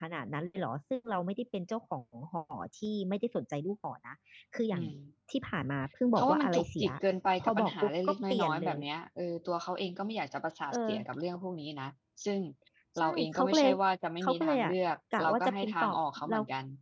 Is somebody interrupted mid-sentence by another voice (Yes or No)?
Yes